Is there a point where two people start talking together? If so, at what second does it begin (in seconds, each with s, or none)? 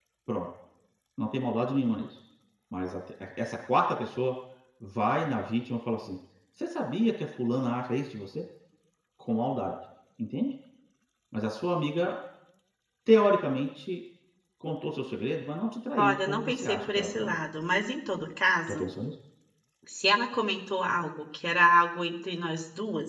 16.0 s